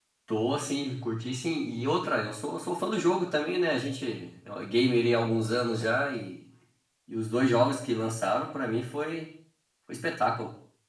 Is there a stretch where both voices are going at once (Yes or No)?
No